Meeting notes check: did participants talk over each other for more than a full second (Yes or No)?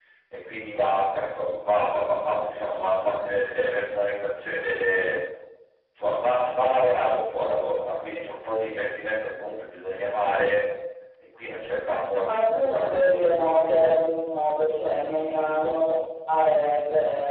Yes